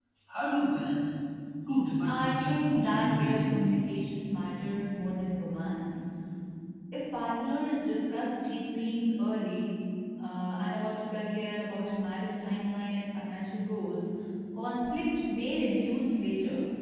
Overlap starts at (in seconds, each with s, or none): 2.1 s